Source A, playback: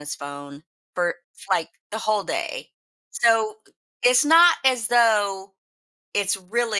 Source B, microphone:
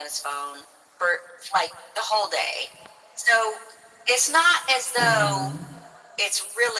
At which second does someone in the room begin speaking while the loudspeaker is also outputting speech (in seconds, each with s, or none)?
5.0 s